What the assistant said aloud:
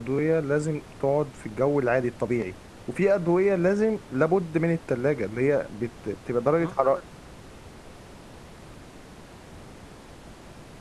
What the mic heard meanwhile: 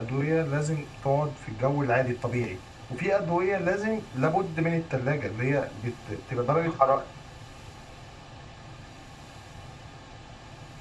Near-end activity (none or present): none